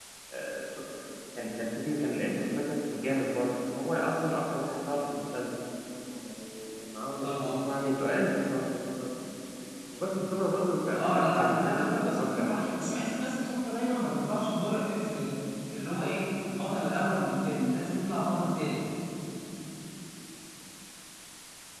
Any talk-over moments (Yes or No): Yes